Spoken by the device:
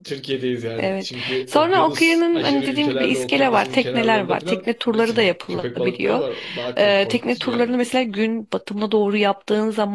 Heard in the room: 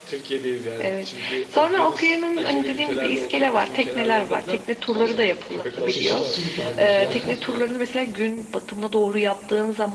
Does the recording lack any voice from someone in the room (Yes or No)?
No